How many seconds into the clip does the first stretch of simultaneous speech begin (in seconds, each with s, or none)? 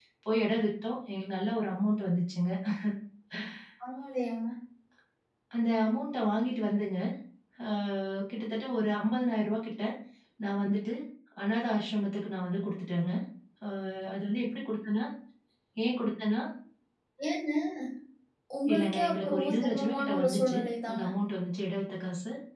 18.7 s